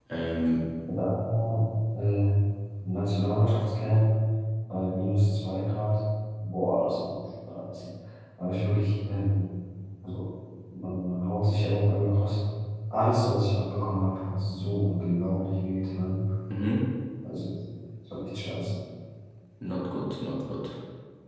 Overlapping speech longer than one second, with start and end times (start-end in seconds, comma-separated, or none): none